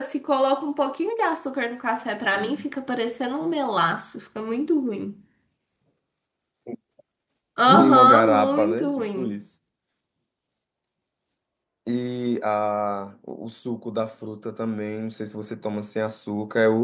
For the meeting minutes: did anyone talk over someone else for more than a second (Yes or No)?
Yes